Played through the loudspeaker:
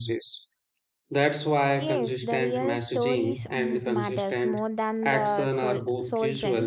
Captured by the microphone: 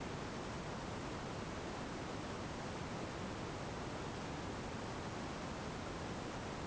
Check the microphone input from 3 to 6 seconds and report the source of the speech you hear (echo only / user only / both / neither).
neither